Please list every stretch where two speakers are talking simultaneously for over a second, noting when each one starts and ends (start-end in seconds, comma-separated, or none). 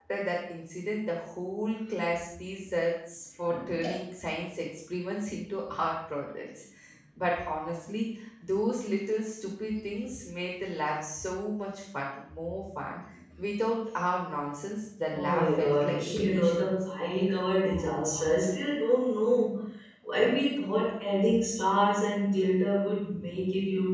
15.2-16.6